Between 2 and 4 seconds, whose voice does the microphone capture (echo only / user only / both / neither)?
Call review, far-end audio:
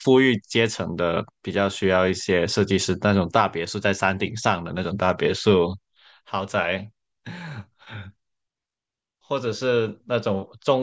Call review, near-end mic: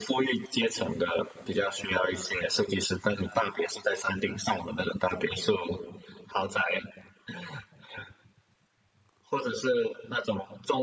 echo only